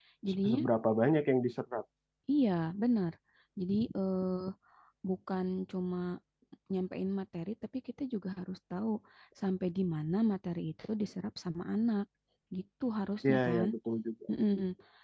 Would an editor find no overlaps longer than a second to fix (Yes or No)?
Yes